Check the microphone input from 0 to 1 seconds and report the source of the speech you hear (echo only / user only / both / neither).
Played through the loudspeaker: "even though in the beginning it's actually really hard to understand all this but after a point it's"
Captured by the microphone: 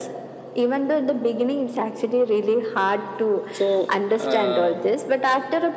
echo only